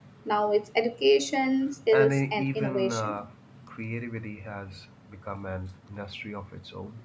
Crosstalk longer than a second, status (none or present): present